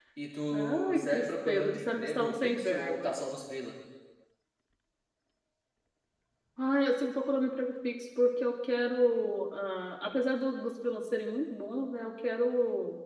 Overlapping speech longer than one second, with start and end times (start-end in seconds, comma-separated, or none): 0.5-3.1